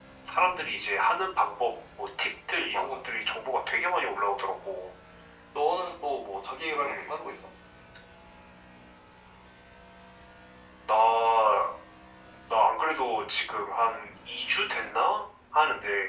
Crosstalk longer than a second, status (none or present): none